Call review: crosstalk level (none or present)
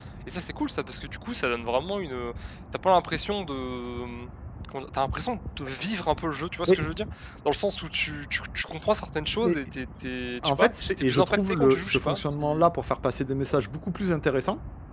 present